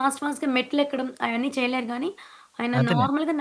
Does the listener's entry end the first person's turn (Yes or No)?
No